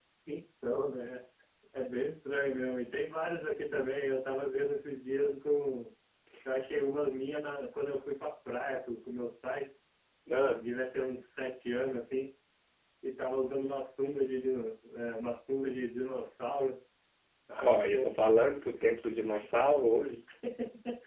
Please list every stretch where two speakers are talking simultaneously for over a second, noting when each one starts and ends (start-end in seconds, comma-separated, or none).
none